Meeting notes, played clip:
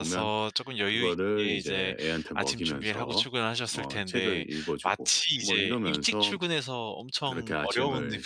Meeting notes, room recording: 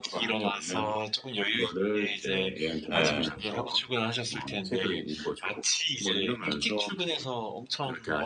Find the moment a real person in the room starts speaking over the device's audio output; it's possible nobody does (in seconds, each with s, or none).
2.9 s